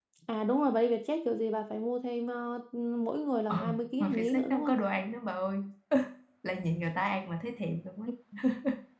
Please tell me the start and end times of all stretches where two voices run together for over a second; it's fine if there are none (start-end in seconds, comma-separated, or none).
3.5-4.7